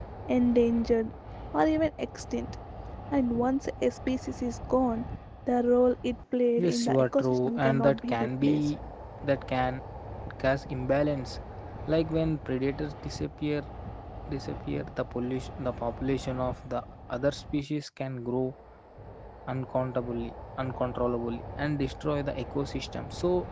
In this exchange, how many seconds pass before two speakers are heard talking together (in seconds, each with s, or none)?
6.6 s